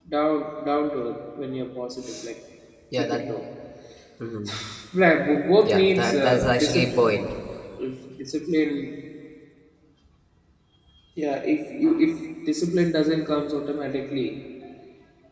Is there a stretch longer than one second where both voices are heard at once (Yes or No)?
Yes